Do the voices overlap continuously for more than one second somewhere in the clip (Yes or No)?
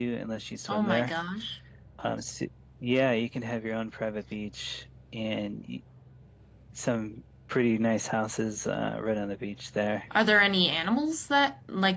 No